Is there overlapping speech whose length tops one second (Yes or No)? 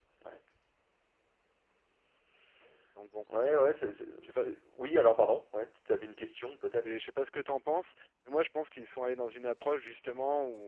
No